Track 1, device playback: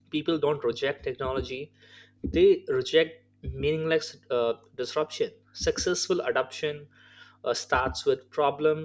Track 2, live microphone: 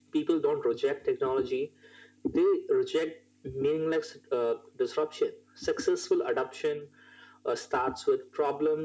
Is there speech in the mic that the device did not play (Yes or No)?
No